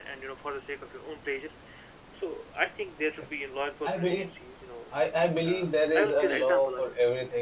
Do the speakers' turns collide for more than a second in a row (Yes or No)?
Yes